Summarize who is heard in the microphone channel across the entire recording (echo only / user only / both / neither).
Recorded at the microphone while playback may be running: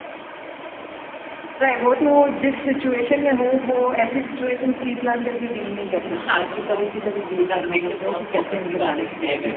both